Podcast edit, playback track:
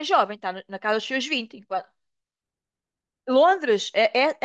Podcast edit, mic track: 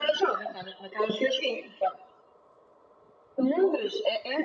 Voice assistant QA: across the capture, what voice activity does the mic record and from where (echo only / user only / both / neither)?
echo only